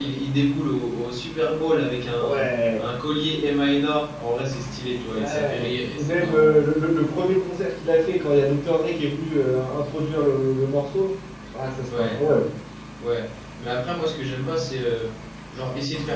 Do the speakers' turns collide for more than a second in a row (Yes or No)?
Yes